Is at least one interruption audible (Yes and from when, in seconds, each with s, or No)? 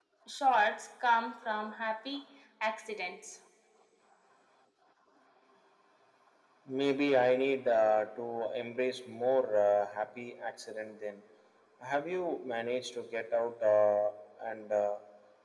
No